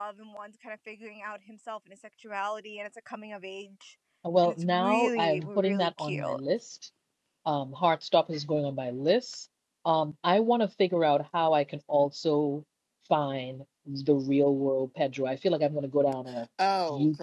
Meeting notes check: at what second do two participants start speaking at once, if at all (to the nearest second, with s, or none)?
4 s